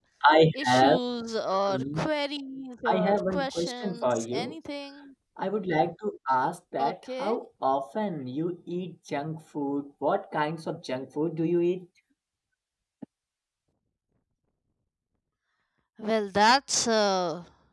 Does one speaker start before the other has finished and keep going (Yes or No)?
Yes